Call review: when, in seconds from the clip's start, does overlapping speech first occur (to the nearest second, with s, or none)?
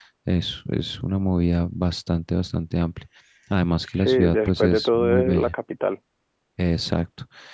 4 s